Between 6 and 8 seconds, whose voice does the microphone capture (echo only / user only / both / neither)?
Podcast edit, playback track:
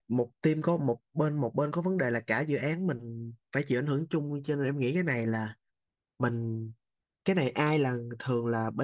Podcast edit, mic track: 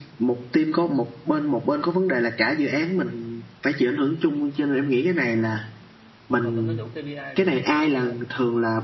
both